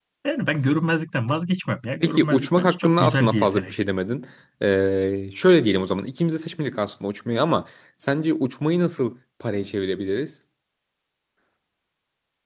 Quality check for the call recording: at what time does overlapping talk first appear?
2.0 s

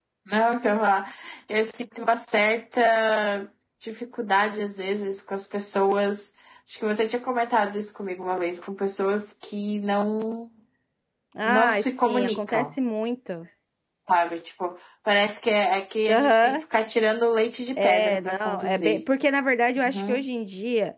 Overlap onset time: 11.4 s

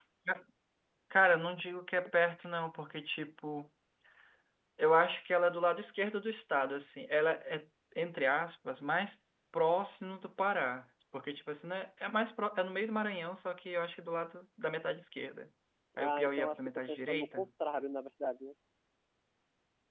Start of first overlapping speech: 16.0 s

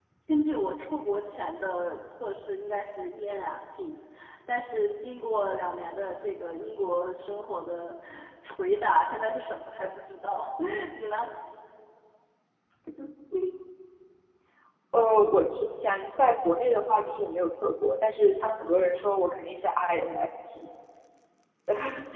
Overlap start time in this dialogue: none

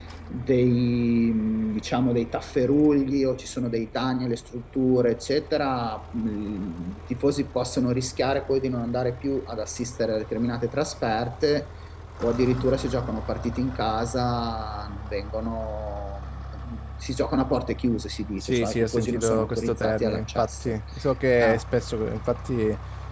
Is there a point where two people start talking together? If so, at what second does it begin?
18.4 s

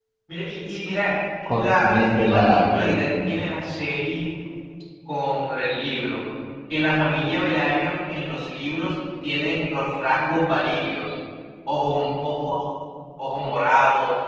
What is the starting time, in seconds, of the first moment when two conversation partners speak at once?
1.5 s

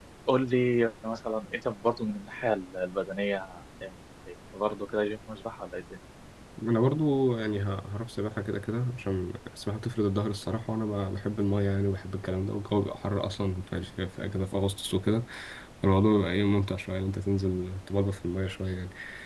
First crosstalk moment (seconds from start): none

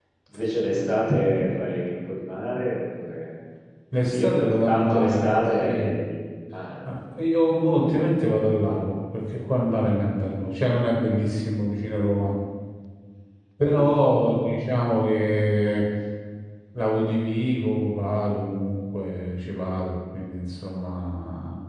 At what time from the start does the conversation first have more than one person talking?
4.1 s

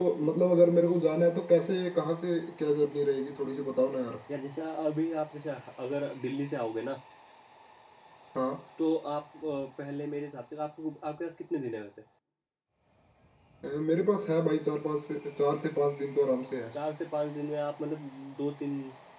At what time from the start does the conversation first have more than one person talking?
none

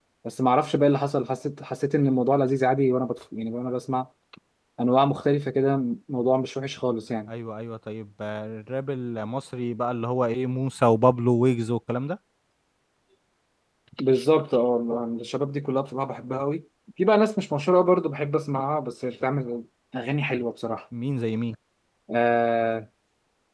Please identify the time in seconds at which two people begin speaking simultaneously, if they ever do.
none

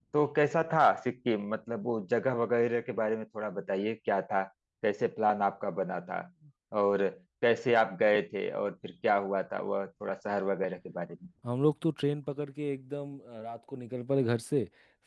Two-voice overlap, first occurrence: none

